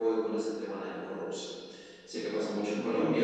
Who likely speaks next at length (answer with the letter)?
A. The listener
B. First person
B